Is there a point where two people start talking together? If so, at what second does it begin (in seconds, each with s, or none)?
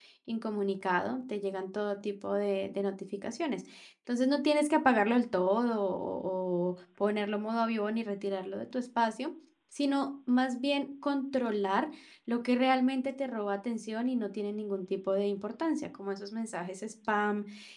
none